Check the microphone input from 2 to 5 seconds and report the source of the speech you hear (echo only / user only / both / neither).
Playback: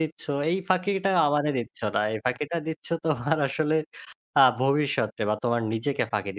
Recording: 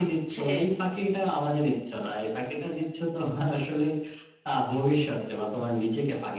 echo only